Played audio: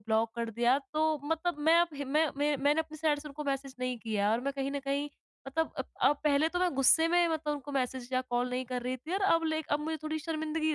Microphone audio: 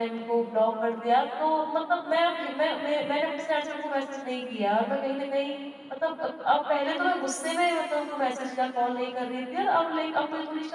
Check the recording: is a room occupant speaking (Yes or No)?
No